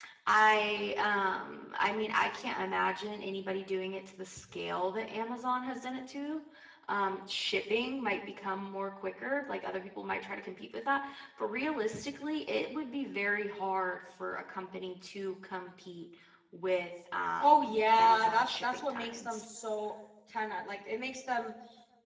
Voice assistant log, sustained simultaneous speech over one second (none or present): present